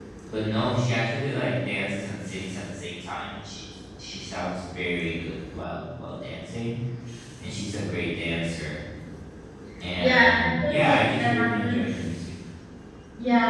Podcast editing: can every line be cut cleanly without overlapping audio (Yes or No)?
No